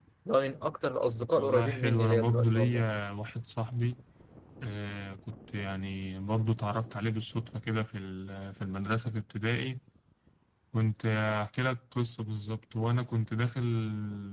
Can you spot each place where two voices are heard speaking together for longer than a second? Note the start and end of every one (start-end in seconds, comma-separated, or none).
1.4-2.9